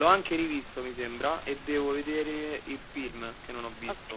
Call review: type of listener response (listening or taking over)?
taking over